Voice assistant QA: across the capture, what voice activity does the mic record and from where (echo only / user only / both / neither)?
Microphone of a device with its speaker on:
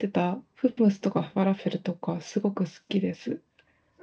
user only